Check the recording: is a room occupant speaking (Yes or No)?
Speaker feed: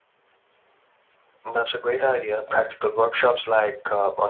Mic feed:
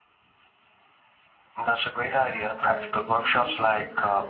Yes